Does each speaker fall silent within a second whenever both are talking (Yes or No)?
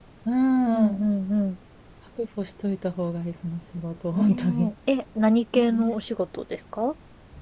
Yes